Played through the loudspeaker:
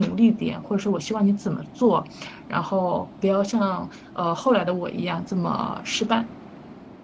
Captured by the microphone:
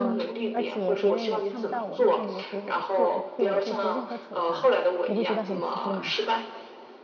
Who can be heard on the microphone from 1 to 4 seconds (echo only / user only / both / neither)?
both